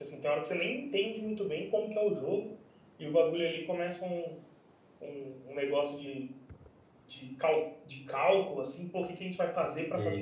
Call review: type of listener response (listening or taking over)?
listening